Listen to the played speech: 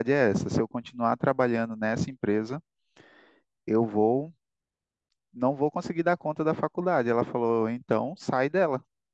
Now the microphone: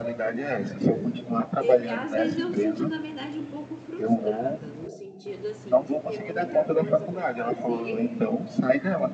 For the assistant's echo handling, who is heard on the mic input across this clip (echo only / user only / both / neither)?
both